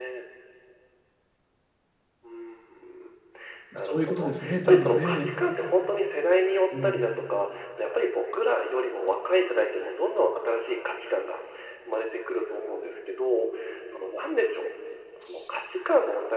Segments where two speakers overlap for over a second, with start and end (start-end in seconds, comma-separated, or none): 3.9-5.3